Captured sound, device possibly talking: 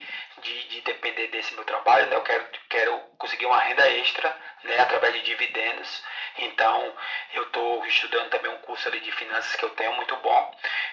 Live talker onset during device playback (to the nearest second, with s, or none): none